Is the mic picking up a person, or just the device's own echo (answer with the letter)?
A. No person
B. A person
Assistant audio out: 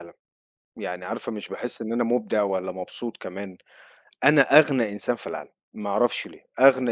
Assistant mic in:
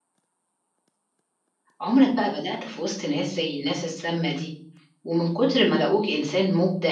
B